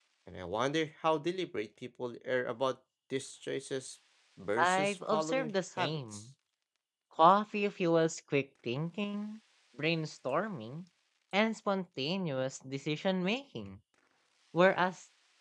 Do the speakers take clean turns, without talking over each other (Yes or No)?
No